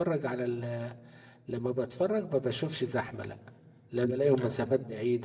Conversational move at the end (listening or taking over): listening